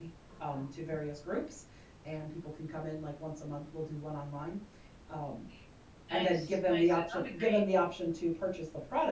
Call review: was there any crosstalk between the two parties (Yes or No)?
Yes